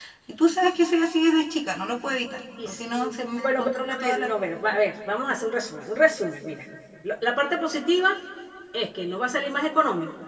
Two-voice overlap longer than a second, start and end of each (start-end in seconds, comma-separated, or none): 2.6-4.3